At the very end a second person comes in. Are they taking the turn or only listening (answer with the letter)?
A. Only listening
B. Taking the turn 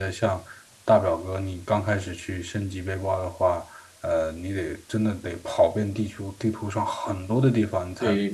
A